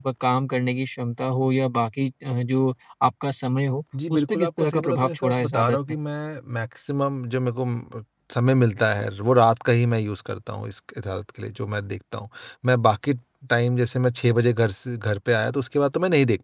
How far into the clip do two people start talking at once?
3.9 s

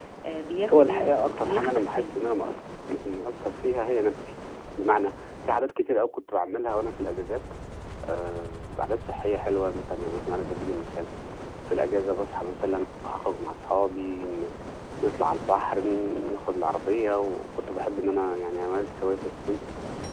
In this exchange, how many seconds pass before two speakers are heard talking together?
0.7 s

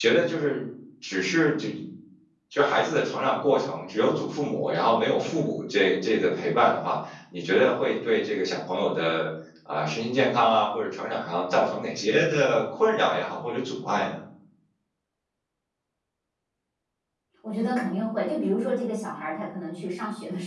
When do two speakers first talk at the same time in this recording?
none

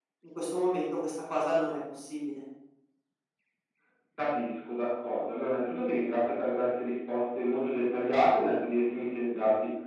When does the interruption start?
none

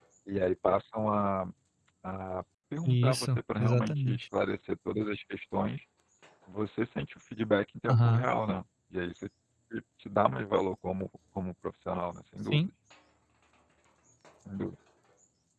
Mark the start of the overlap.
2.8 s

